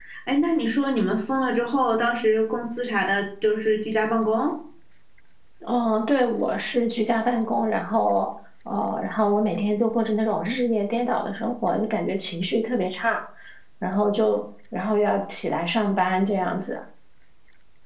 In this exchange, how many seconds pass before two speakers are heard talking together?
none

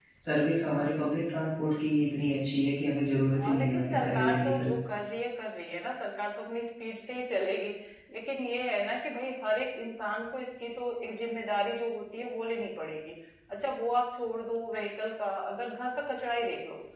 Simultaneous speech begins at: 3 s

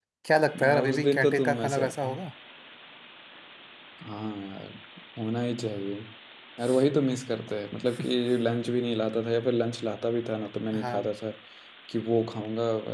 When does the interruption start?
1 s

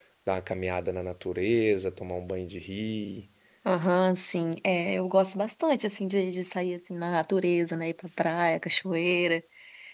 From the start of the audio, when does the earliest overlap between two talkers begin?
none

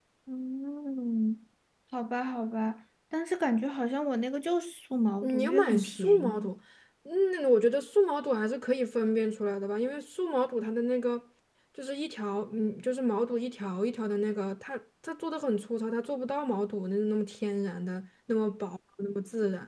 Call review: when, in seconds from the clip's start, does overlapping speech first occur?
5 s

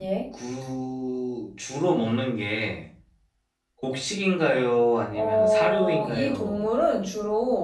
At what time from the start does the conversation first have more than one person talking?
5 s

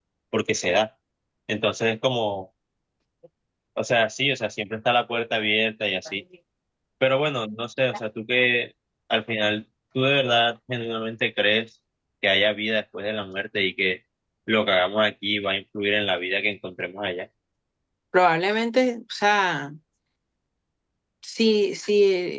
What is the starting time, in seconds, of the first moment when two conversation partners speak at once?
none

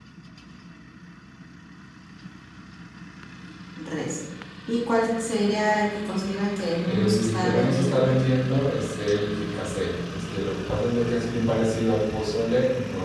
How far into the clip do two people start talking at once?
7 s

